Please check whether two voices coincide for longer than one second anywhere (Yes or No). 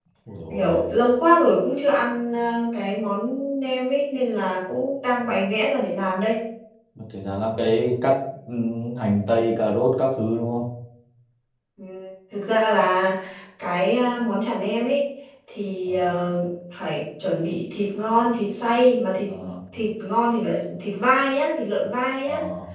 No